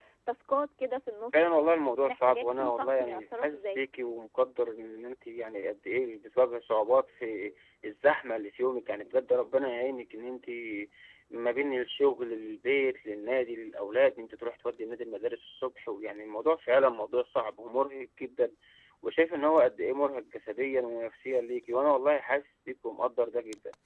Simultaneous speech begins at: 1.3 s

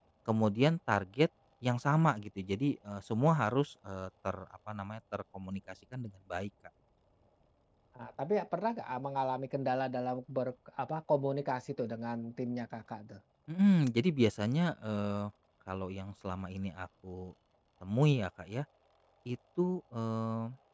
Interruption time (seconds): none

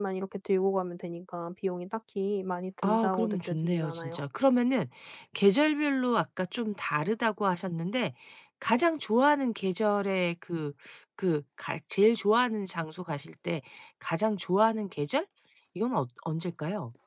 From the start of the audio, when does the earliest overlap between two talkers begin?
2.8 s

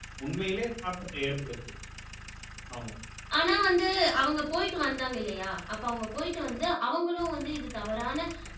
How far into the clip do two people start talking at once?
none

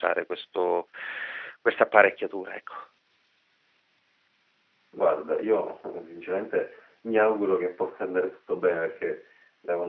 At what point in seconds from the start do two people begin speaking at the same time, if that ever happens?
none

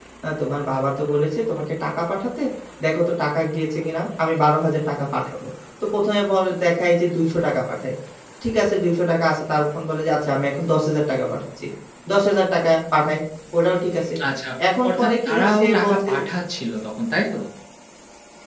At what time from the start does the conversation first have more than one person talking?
14.9 s

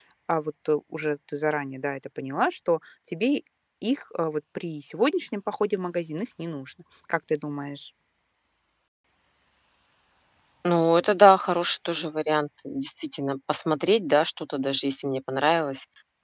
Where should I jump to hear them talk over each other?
none

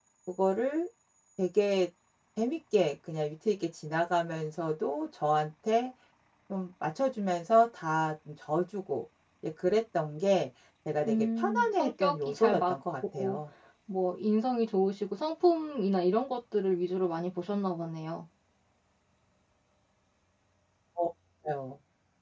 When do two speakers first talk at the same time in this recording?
11.0 s

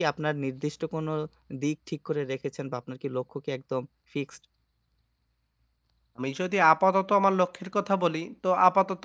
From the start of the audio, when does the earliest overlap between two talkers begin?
none

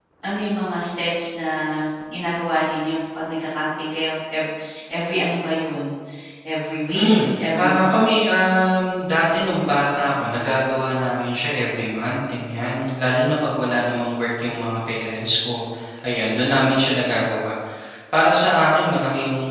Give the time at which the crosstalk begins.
6.9 s

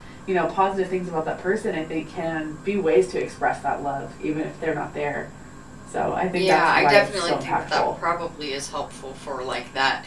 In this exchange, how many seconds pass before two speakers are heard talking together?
6.3 s

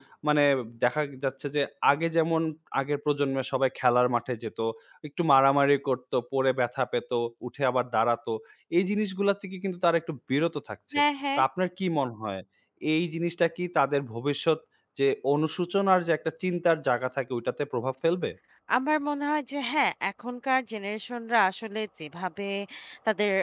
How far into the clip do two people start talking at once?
none

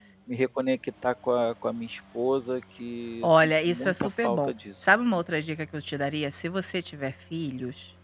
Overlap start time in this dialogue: 3.2 s

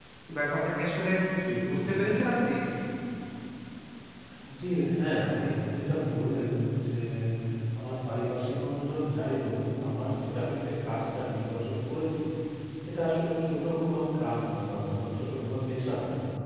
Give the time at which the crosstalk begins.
none

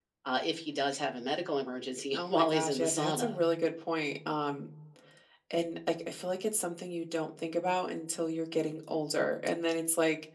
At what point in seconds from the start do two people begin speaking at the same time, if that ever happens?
2.2 s

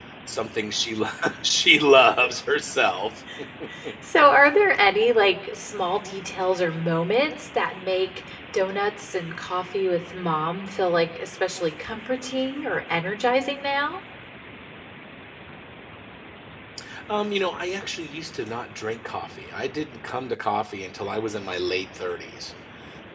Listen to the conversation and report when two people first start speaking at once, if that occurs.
none

